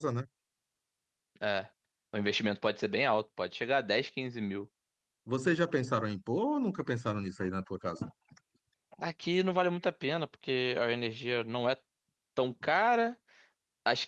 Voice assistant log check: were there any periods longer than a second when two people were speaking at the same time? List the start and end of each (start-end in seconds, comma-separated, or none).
none